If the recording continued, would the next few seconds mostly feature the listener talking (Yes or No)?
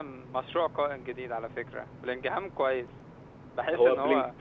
Yes